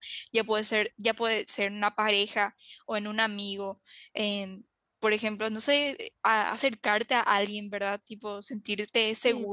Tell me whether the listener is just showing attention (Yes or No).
Yes